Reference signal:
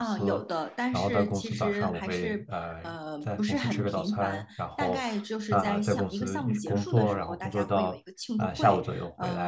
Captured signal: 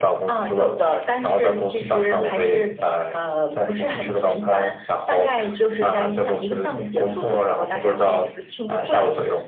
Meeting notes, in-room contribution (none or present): none